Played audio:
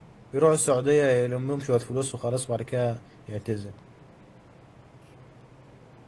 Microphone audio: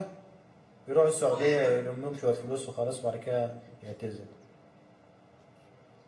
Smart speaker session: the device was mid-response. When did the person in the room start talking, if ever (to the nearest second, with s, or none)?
1 s